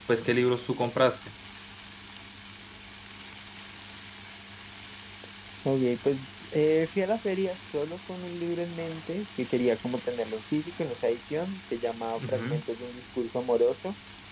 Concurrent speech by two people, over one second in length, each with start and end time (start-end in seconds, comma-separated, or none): none